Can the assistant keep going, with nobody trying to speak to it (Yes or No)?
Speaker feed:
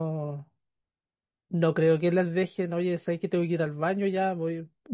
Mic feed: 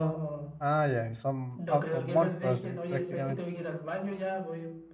No